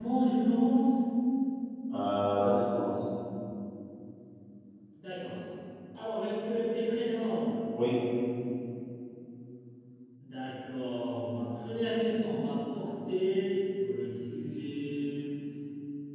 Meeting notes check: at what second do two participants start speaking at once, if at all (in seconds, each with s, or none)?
none